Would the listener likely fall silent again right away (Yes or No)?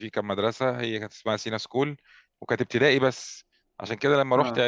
Yes